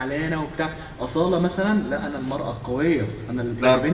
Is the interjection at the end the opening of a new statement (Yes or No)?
No